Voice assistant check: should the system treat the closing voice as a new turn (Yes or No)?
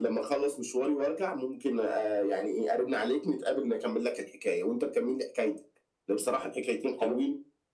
No